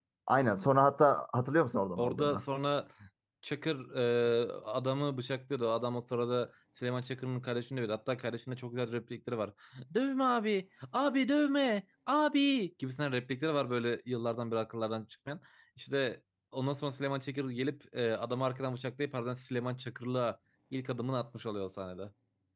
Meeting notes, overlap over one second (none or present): none